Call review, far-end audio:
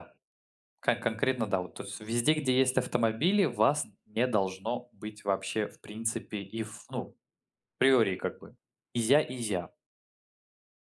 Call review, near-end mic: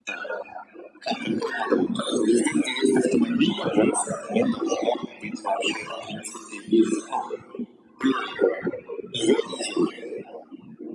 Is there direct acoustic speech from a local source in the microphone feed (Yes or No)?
No